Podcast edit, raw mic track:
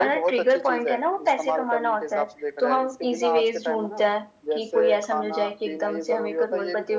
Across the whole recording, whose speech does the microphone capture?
echo only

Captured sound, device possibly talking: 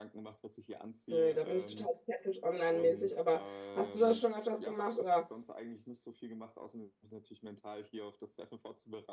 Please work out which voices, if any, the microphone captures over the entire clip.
both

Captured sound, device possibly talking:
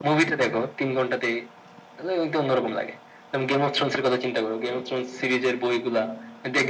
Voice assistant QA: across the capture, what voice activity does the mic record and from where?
echo only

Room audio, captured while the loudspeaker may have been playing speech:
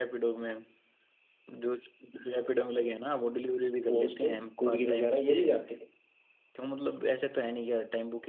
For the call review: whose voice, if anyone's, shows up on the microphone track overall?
both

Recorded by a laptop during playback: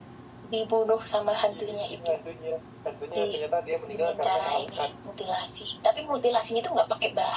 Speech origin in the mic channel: echo only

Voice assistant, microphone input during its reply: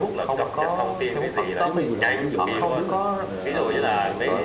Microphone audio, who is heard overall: both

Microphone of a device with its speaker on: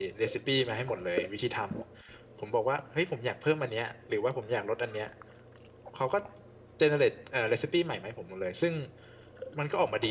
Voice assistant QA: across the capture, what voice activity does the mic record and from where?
user only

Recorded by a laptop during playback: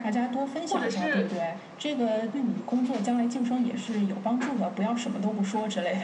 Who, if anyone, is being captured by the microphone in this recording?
both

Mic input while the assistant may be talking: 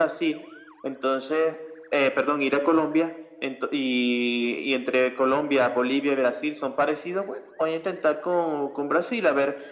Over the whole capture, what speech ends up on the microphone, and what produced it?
echo only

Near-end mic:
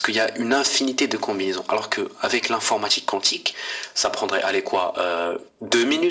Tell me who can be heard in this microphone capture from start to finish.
echo only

